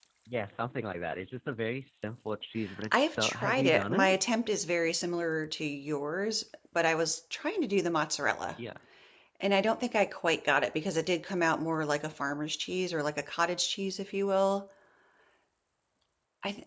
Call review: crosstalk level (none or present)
present